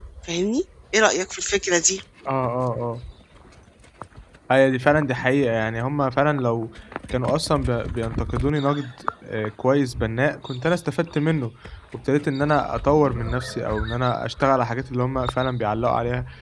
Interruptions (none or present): none